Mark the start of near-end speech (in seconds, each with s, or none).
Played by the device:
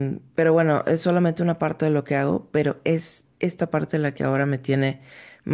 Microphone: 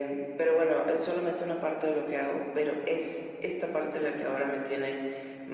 none